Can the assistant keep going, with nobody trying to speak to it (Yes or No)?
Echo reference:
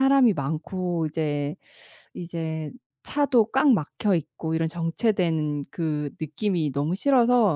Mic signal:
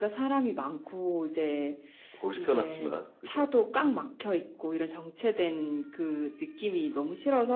No